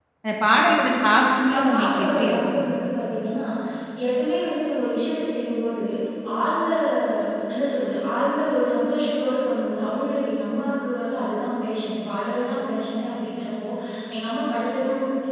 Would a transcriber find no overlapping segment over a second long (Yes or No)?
No